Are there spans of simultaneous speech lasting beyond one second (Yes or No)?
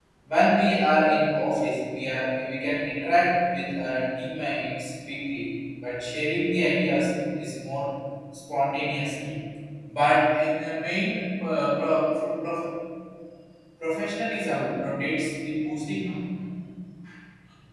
No